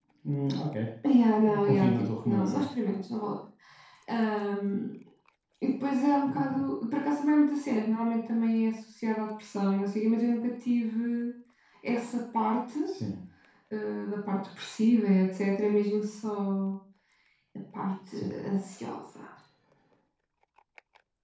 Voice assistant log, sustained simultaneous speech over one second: present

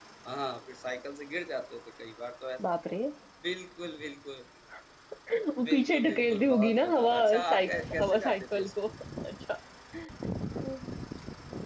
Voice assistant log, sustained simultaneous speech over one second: present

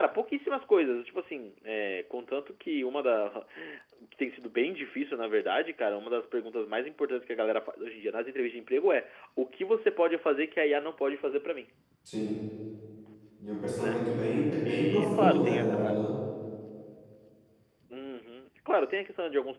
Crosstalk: present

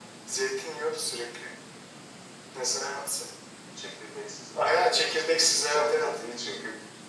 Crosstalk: present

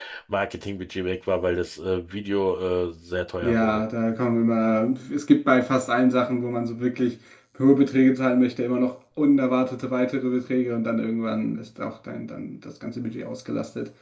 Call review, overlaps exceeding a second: none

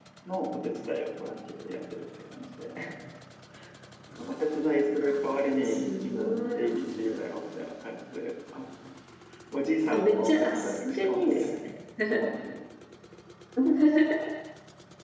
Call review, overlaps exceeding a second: present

